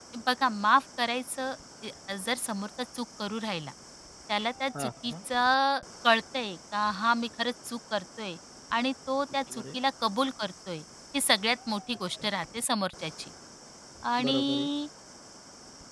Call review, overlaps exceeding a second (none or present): none